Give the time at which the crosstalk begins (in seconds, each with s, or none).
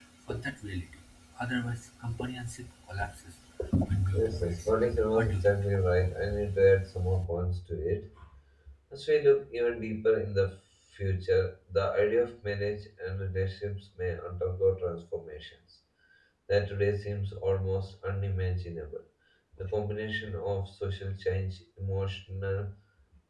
4.1 s